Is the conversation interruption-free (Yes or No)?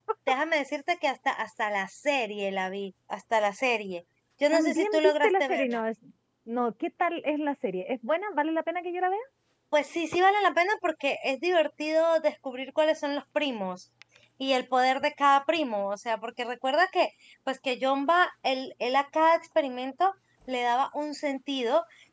No